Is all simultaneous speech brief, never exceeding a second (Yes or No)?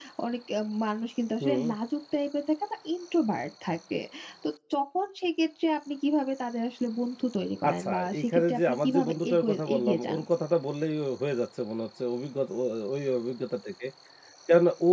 No